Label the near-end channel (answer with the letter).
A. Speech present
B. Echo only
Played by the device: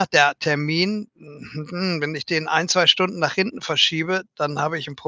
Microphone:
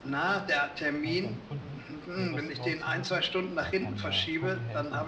A